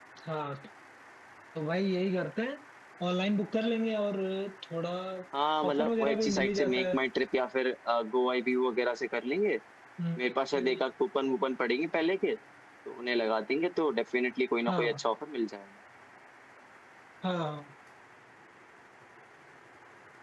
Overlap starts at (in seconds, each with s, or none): 5.7 s